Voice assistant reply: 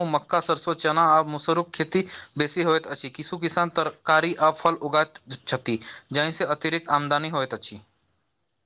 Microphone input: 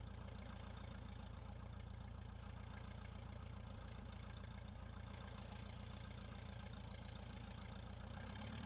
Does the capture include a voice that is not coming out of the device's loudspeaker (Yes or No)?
No